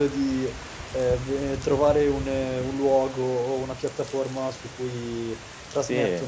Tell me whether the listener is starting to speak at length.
Yes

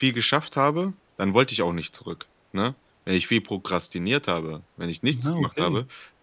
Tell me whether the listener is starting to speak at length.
No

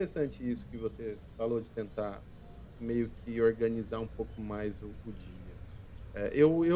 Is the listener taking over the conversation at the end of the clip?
Yes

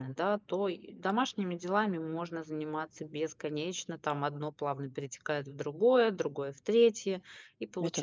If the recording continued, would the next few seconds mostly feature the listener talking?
No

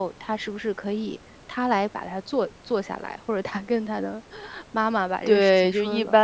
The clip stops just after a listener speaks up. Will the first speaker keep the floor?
No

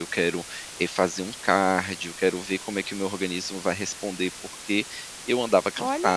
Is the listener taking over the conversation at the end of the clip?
Yes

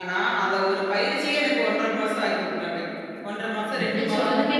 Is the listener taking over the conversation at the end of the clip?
Yes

